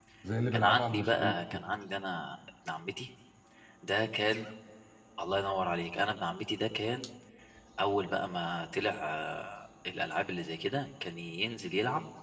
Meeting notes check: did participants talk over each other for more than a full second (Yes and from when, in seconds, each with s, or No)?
Yes, from 0.5 s